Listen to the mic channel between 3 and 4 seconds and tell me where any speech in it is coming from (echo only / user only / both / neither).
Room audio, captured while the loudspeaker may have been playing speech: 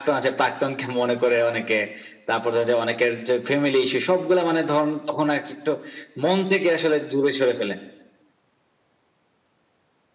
echo only